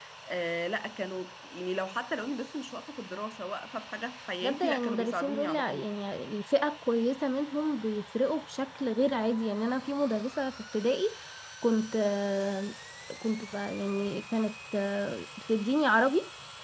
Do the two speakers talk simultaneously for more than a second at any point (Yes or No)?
Yes